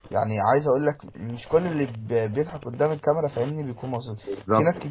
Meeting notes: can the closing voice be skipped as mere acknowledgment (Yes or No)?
Yes